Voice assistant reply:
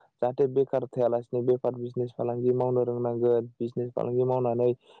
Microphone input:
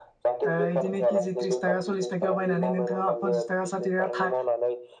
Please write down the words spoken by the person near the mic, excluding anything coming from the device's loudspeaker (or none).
ओ इदिनो किजि त्रिसथाखा सलिसथा थाखायाव बायनानै नोंथाङा पनसासथाखा साथिथाखा